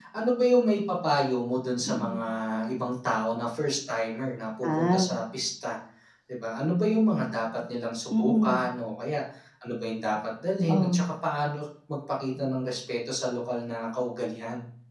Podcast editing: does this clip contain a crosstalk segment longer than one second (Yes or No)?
No